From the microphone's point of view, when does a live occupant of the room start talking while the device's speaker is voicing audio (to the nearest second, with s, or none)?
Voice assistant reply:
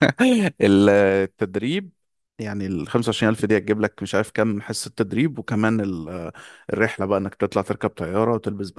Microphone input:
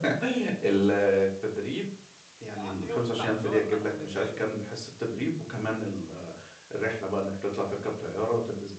2 s